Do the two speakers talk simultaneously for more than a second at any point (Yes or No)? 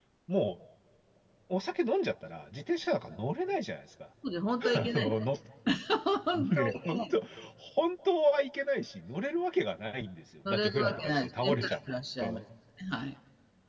Yes